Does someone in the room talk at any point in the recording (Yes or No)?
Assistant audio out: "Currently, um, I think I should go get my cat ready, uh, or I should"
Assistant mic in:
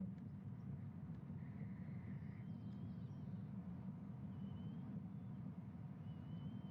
No